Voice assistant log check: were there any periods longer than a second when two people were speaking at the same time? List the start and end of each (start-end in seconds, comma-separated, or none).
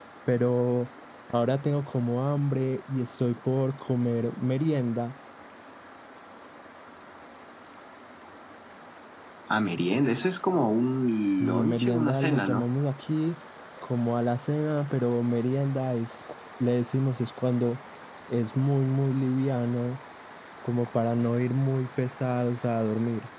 11.3-12.6